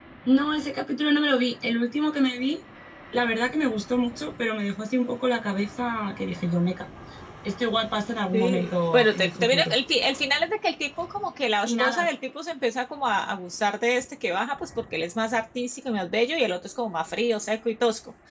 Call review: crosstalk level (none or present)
present